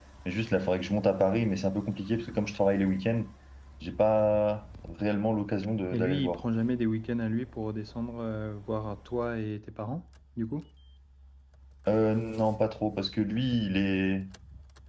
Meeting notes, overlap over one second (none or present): none